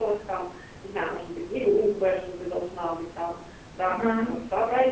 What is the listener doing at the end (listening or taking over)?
listening